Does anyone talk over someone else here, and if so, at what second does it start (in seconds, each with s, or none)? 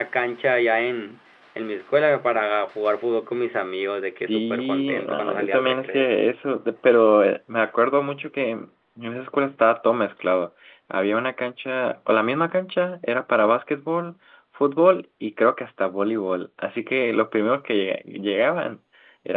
4.3 s